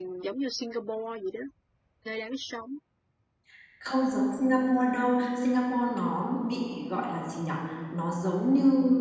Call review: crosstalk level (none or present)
none